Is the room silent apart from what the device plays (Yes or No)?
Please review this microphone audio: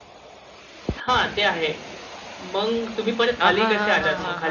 No